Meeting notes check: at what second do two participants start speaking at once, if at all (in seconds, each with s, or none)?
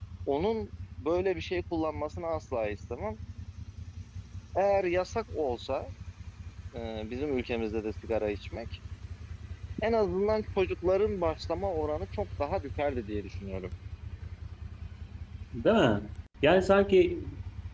none